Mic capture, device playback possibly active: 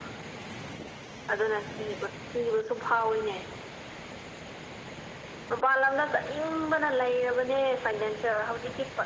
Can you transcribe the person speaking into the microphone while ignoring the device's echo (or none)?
none